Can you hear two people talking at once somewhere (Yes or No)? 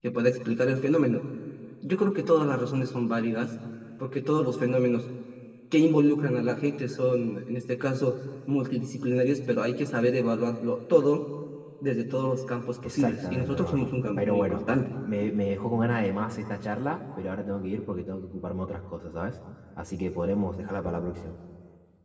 Yes